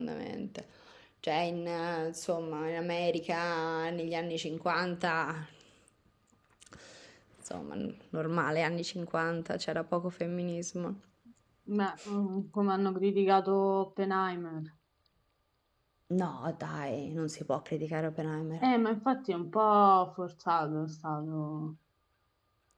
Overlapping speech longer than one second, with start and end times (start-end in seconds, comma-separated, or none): none